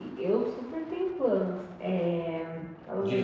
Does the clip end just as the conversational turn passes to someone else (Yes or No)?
Yes